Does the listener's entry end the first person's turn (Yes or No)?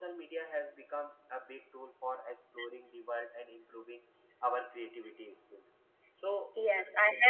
Yes